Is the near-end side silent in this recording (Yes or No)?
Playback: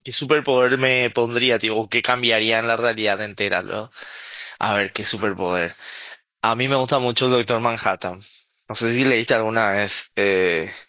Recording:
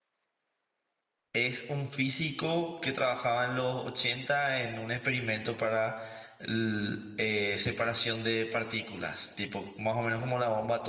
No